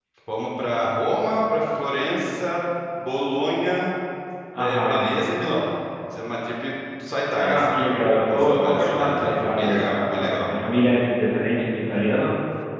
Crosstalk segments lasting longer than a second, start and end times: 8.3-10.5

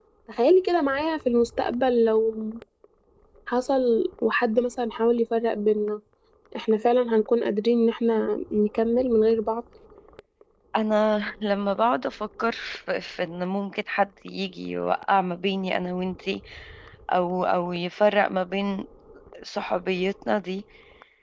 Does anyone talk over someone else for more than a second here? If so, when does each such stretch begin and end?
none

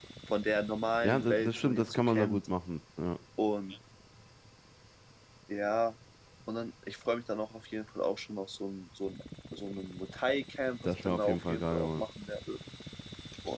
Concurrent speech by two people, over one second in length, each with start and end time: 1.0-2.5, 10.8-12.0

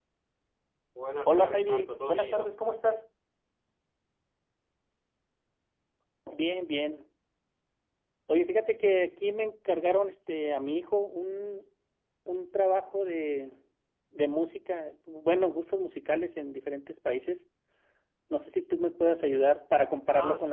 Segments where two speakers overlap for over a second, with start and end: 1.3-2.5

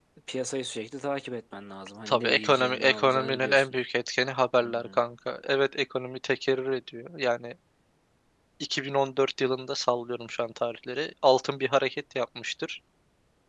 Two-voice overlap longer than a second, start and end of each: 2.1-3.7

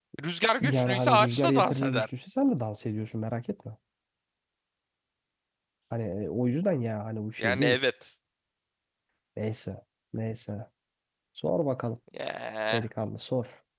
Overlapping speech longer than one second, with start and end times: 0.6-2.1

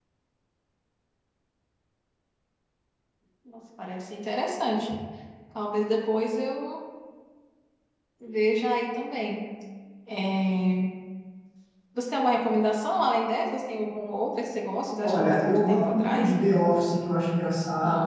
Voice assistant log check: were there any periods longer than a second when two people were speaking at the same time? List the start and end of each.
15.0-16.3

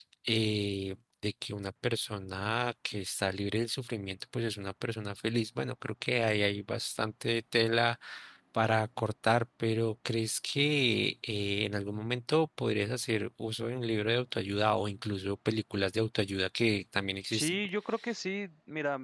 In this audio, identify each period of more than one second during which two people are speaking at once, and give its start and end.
none

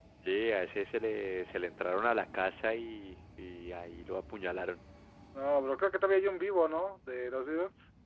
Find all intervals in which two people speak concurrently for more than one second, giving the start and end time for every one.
none

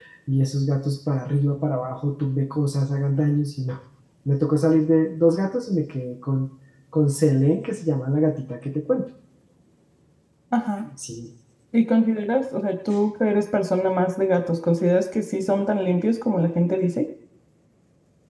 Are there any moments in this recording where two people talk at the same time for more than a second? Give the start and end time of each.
none

